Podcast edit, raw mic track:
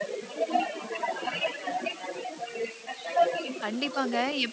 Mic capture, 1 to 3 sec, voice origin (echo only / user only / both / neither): echo only